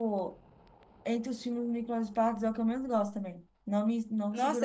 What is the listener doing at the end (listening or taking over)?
taking over